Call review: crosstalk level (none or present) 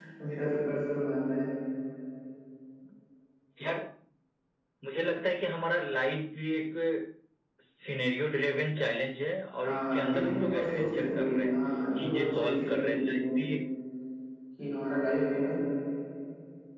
present